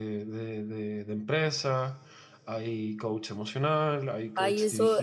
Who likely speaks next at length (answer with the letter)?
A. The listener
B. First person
A